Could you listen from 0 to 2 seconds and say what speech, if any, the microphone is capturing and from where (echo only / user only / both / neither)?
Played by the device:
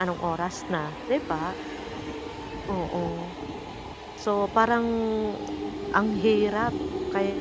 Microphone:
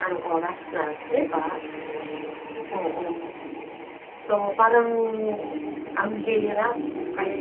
echo only